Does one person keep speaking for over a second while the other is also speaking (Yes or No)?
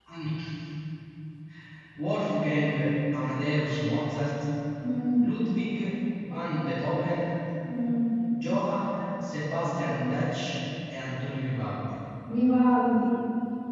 No